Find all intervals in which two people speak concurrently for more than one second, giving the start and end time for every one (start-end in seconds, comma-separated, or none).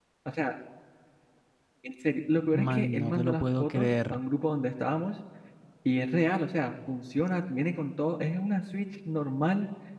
2.5-4.2